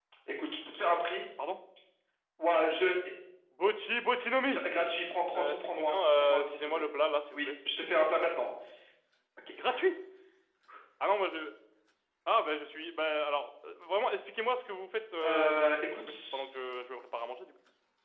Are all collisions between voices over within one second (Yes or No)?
No